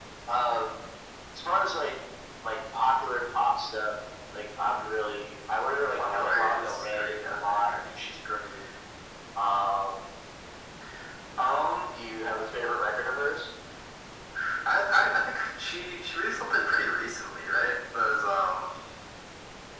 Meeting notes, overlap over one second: present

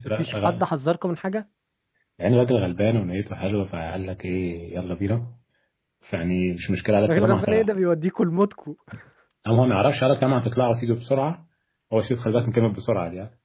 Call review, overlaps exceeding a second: none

